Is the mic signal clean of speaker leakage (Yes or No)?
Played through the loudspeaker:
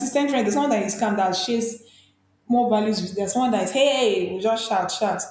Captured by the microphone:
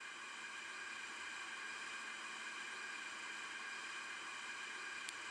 Yes